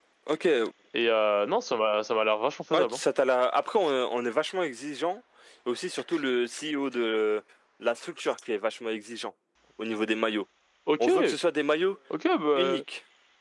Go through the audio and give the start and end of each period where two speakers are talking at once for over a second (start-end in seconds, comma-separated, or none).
none